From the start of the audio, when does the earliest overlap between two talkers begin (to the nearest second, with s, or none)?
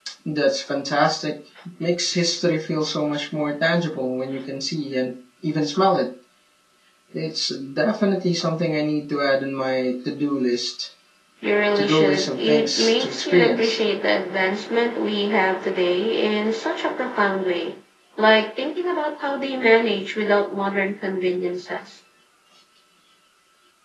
12 s